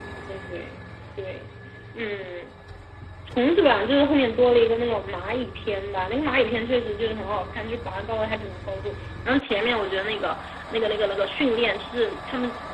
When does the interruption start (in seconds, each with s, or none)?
none